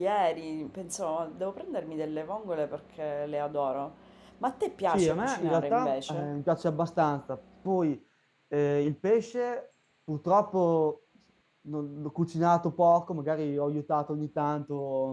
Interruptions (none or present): present